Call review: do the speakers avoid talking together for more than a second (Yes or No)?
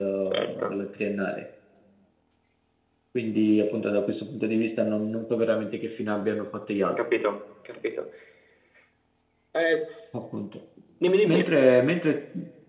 Yes